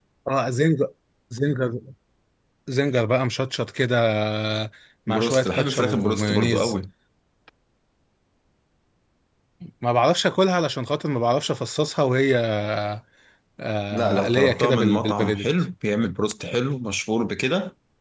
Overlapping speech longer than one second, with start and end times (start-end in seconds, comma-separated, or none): 5.1-6.7, 13.9-15.5